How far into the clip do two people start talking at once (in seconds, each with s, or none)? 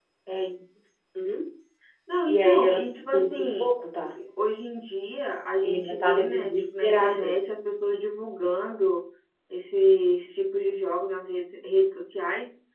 2.3 s